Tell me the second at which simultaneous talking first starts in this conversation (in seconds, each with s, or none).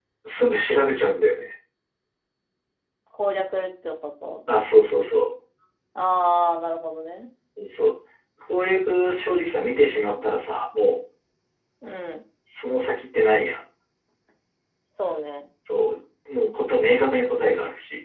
none